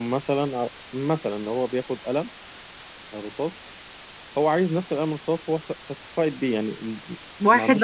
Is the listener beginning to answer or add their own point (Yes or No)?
Yes